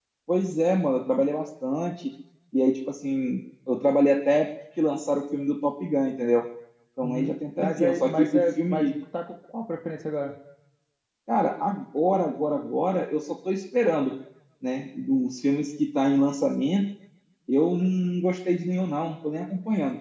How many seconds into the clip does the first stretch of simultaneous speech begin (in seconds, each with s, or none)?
7.0 s